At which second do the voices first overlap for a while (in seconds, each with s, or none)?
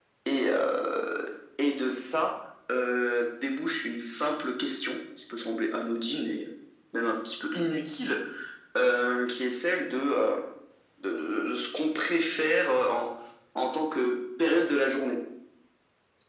none